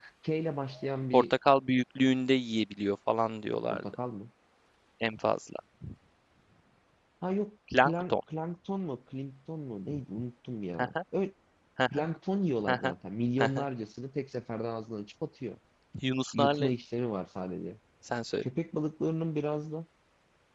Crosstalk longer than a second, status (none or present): none